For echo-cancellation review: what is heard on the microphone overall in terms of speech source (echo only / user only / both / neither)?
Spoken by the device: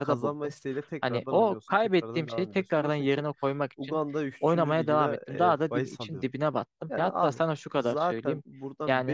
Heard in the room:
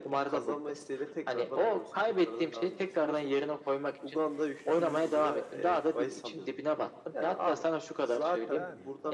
both